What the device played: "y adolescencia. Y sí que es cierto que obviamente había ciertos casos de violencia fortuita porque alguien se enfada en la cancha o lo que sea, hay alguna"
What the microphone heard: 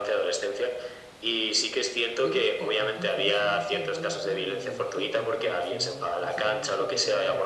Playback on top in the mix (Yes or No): Yes